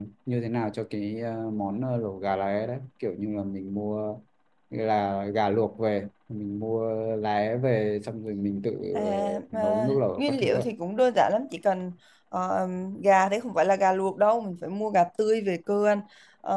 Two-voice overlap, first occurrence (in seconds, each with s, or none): 8.9 s